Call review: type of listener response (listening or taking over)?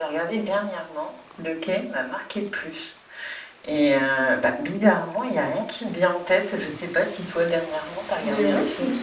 taking over